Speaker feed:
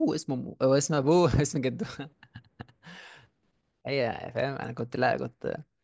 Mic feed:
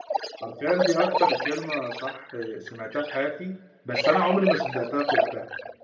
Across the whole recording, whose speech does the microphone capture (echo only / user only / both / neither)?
both